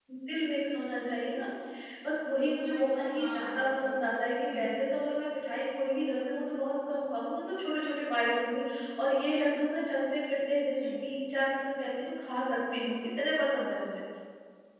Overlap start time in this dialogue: 2.8 s

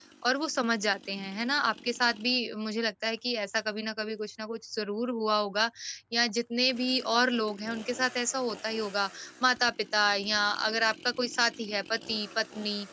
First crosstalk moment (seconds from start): none

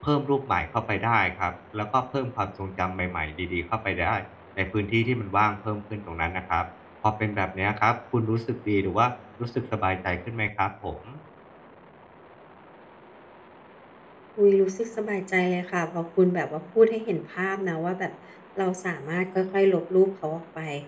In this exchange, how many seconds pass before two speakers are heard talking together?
none

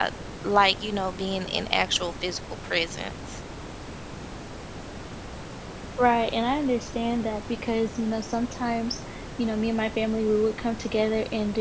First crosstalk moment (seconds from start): none

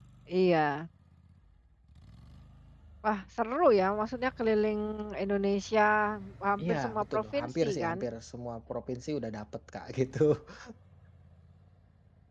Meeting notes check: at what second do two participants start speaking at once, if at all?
6.6 s

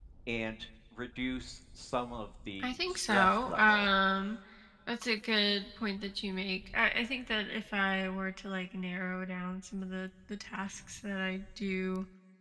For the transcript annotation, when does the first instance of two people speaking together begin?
2.6 s

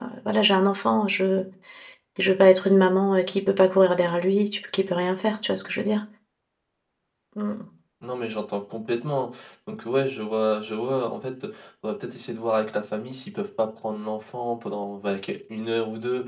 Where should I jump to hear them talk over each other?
none

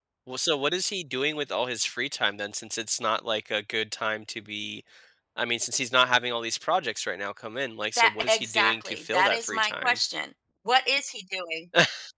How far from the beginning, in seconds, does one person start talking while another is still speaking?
8.0 s

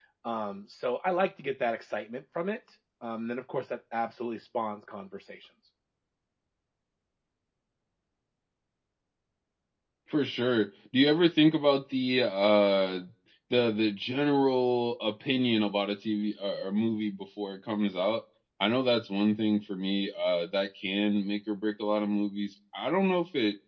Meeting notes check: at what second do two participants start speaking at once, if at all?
none

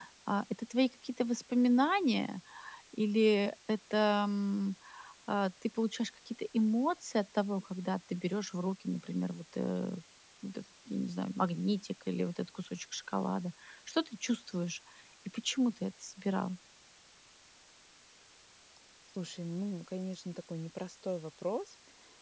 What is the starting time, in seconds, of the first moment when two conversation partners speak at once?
none

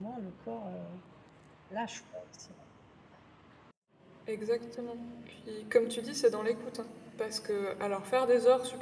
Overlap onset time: none

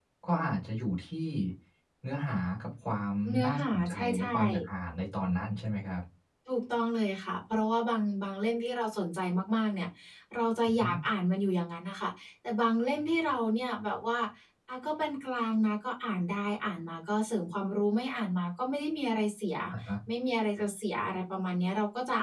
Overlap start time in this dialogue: 3.3 s

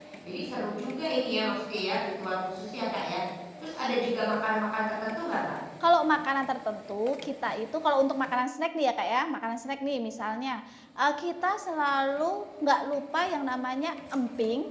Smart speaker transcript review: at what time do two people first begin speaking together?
none

